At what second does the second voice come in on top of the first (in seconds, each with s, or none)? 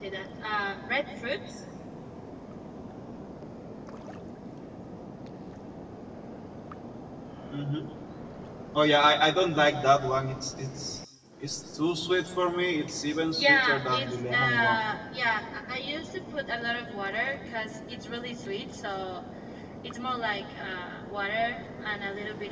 13.3 s